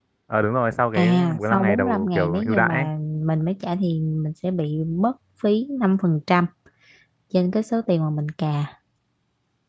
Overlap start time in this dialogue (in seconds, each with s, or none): 0.9 s